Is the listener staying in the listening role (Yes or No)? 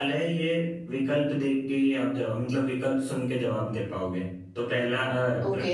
Yes